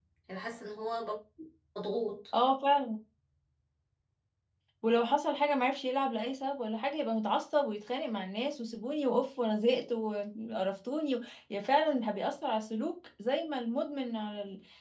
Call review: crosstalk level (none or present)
none